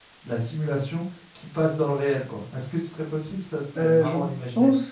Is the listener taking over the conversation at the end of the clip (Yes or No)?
Yes